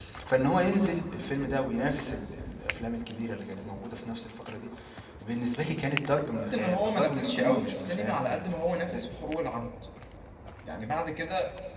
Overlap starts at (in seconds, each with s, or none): 6.5 s